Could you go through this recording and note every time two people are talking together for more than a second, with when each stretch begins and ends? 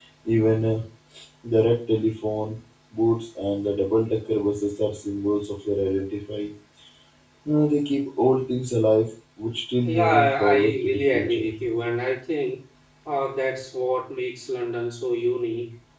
9.8-11.5

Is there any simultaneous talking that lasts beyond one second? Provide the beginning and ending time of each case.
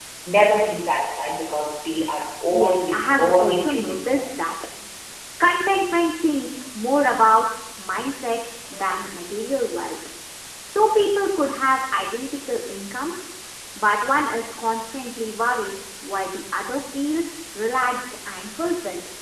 2.5-4.2

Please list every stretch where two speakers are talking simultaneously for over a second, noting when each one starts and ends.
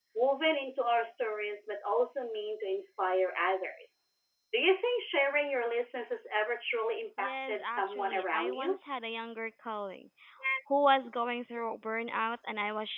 7.2-8.8

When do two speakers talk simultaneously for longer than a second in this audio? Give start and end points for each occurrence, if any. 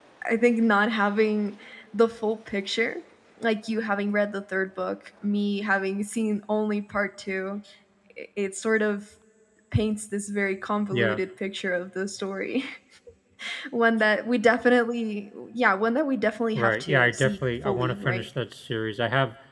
16.6-18.3

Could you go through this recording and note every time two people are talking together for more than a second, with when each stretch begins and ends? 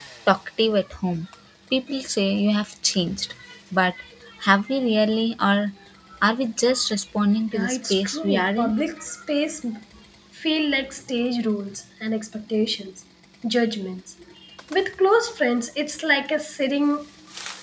7.5-8.7

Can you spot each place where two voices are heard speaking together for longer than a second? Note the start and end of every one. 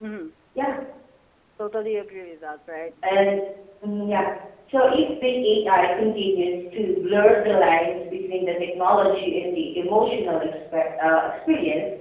none

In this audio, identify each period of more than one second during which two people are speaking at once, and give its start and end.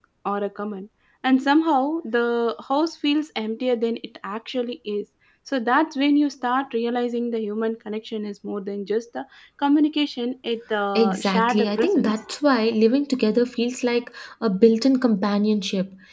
10.9-12.2

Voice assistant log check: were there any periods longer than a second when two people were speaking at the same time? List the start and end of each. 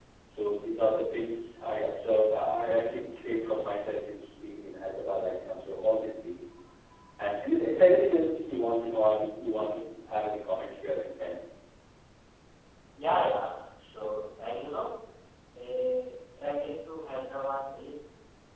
none

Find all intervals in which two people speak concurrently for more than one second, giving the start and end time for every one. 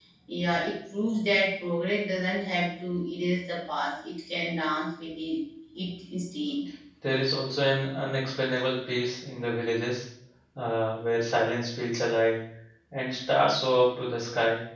none

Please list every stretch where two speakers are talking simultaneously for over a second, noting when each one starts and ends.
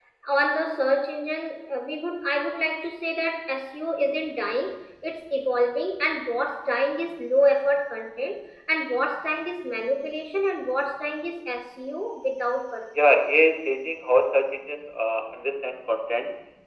none

